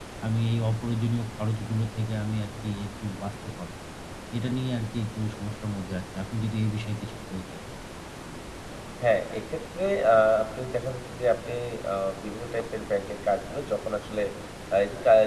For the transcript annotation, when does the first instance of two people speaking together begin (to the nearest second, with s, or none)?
none